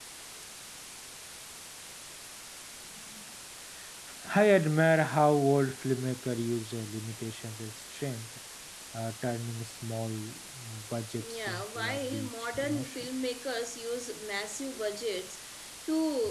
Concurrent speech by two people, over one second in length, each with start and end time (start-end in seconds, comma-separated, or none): 11.2-13.1